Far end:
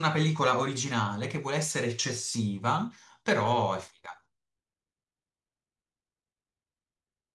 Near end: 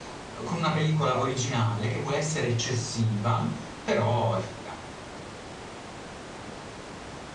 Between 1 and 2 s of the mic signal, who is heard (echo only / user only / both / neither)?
echo only